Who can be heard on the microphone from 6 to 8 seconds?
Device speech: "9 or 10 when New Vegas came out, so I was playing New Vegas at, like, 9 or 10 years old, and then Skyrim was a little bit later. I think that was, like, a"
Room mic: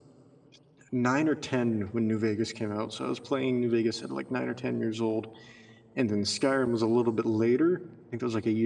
echo only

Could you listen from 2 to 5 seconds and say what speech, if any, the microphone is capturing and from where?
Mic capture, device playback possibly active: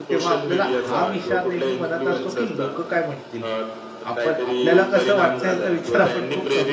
both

